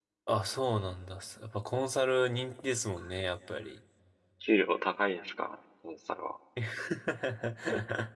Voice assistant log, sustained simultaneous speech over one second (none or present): none